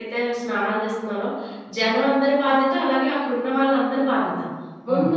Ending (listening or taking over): listening